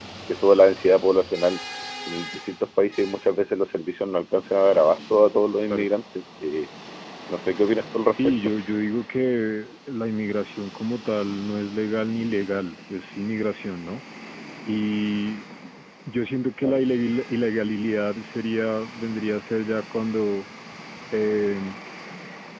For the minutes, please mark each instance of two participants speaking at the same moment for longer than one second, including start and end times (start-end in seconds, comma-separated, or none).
none